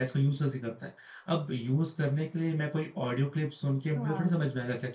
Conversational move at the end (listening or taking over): listening